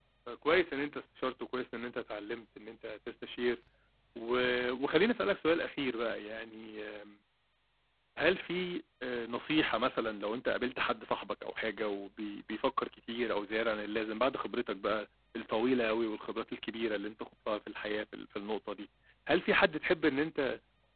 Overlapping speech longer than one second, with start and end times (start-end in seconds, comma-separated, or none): none